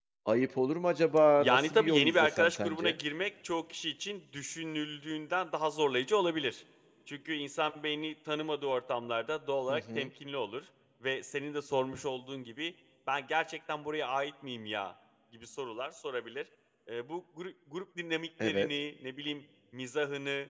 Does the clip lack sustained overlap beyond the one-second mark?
No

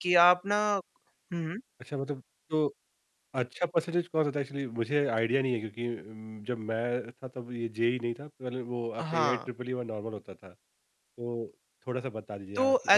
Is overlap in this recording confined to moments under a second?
Yes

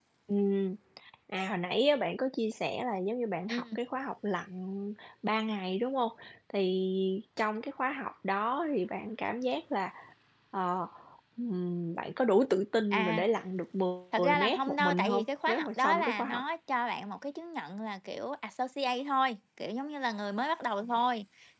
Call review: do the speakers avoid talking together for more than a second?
No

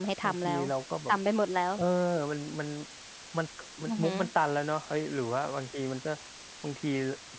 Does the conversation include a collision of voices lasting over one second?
No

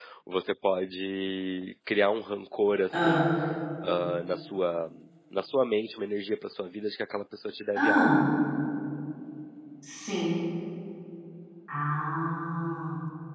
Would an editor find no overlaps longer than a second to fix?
Yes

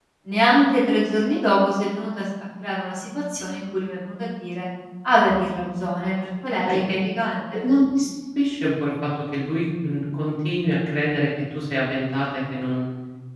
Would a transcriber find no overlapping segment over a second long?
Yes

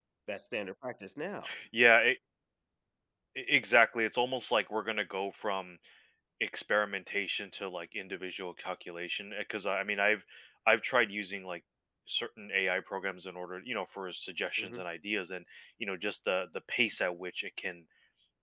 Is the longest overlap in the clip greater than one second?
No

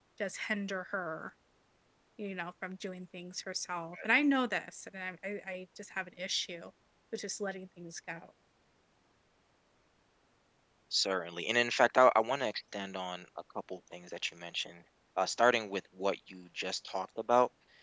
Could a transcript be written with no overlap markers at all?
Yes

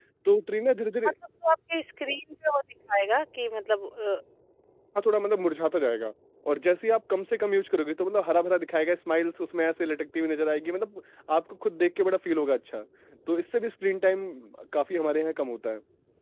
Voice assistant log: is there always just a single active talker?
Yes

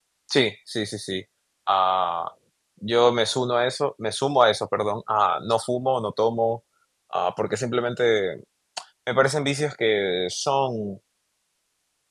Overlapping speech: No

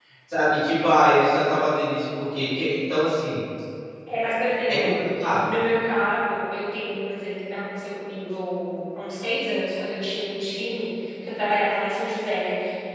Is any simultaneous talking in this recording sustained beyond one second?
No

